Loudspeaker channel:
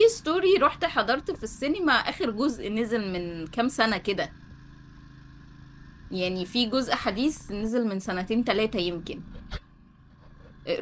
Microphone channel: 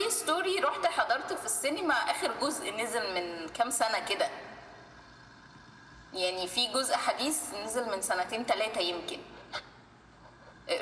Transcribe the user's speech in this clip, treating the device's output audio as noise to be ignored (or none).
none